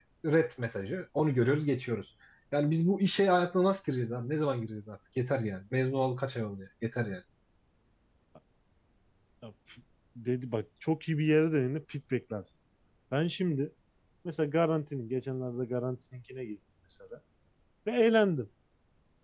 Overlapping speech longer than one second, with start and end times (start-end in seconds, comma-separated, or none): none